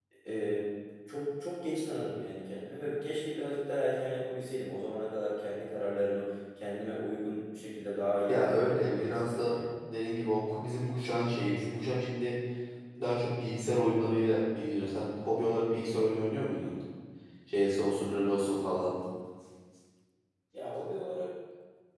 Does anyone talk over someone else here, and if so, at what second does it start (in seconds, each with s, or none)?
8.3 s